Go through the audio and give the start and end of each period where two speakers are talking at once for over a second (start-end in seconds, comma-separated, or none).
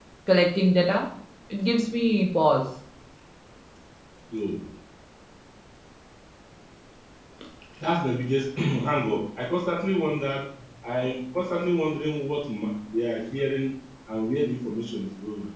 none